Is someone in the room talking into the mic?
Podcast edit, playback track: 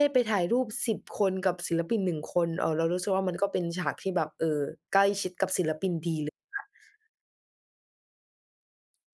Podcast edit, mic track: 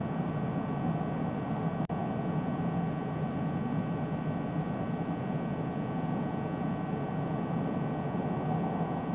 No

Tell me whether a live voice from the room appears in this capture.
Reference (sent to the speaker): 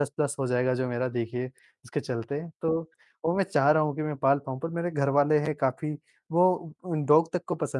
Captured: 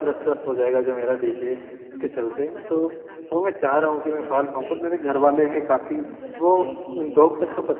Yes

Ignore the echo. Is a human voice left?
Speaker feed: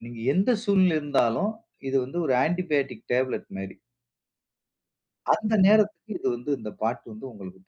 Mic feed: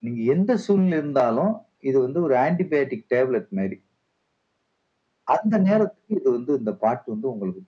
No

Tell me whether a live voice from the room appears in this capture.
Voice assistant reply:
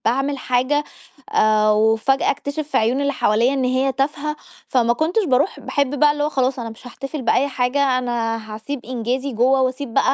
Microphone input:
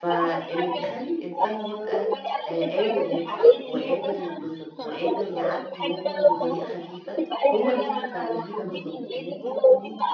Yes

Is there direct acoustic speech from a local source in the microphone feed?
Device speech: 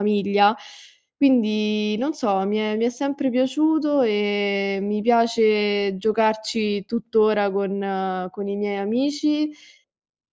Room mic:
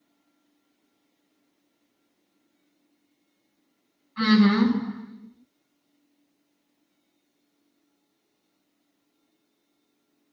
Yes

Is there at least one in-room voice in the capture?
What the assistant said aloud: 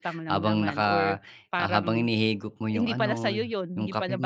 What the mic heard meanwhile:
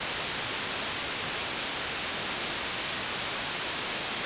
No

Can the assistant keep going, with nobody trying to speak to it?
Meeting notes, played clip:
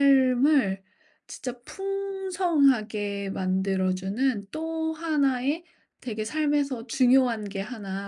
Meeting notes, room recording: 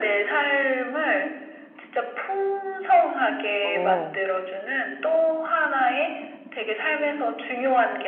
No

